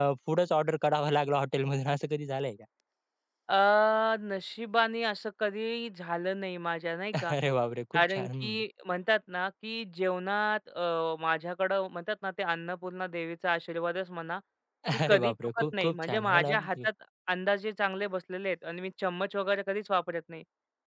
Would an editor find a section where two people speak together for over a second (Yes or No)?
Yes